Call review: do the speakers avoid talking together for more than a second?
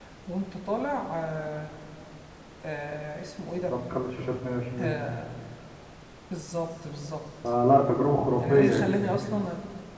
Yes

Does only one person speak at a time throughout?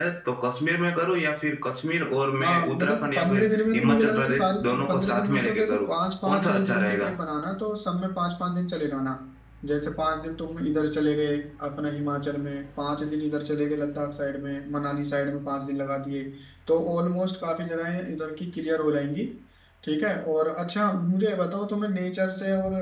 No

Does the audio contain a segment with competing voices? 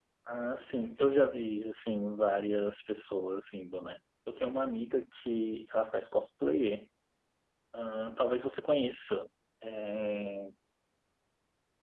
No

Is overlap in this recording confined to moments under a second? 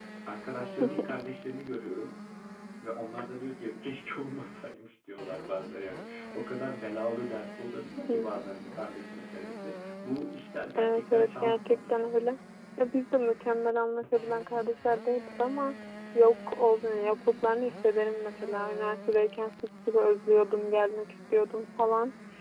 No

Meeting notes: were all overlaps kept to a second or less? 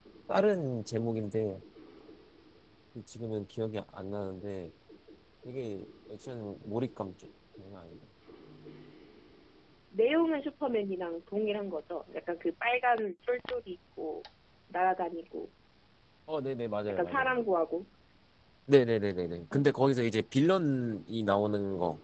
Yes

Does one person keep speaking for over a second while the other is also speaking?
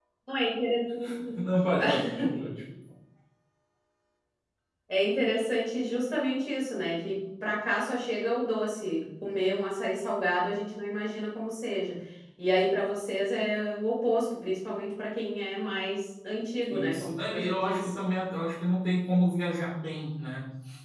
Yes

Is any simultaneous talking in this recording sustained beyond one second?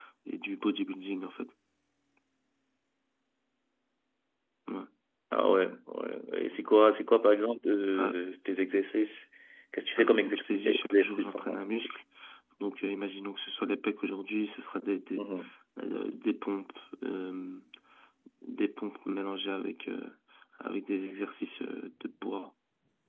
Yes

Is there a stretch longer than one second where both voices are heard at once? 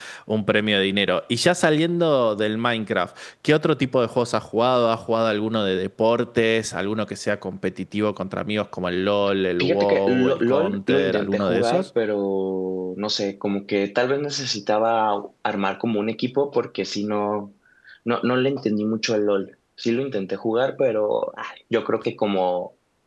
Yes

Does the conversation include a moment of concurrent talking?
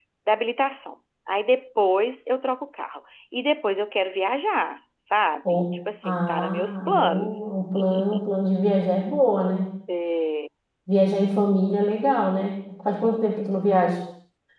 Yes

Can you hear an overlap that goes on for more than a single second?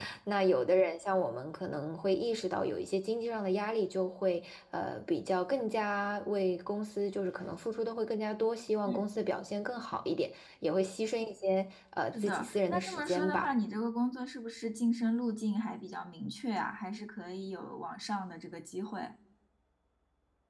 Yes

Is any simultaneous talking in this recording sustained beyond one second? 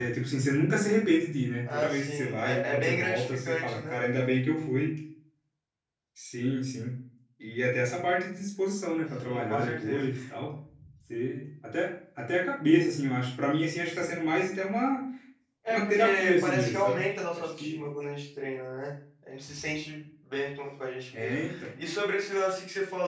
Yes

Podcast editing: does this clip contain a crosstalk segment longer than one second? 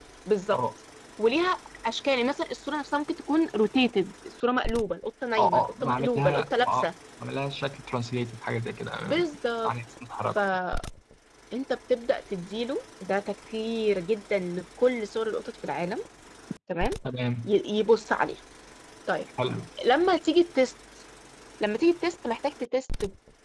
Yes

